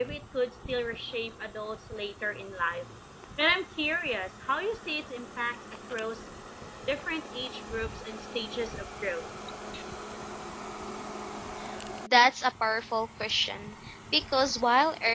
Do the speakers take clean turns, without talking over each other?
Yes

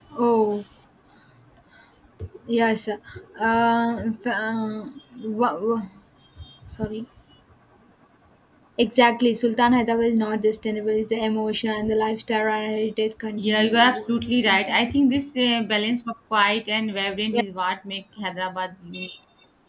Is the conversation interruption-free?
No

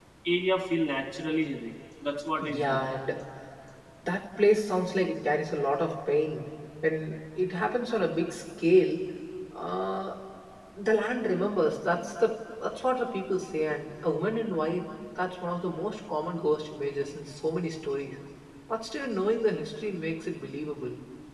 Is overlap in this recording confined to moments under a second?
Yes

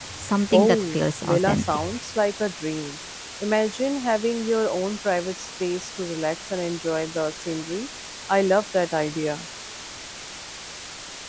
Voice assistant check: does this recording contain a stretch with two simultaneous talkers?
Yes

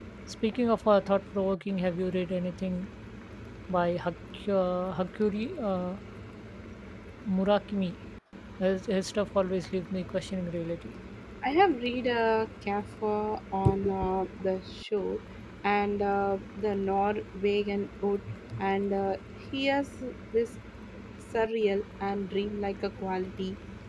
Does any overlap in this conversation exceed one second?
No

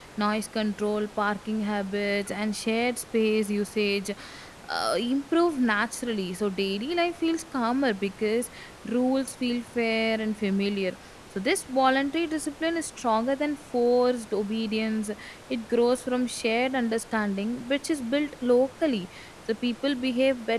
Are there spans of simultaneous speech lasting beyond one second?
No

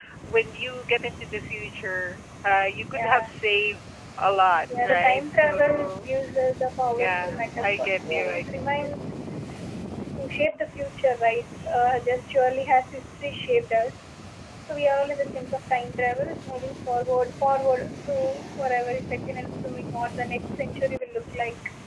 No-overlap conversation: No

